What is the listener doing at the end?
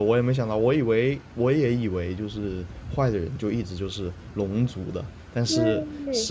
listening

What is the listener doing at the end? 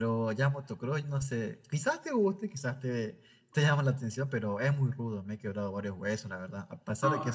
listening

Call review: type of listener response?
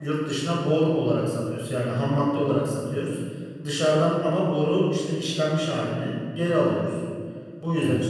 listening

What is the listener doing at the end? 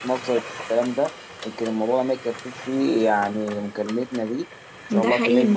taking over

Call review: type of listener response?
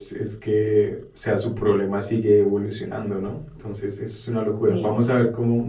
listening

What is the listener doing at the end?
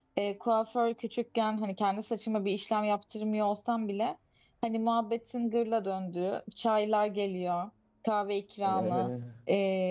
listening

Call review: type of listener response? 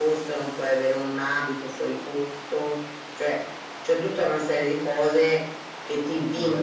listening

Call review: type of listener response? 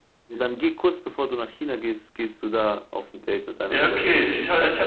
taking over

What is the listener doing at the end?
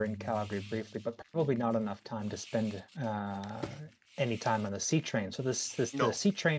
listening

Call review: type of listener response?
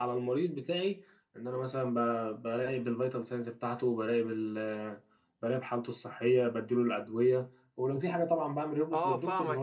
taking over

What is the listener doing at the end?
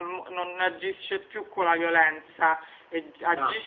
listening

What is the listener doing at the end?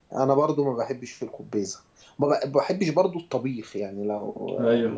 listening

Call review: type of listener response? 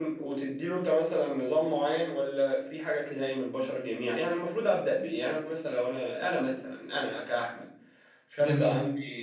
listening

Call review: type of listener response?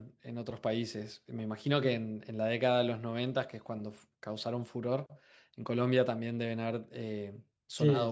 taking over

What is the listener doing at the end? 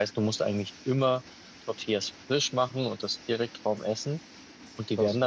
listening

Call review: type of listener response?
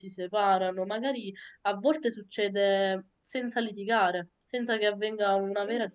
listening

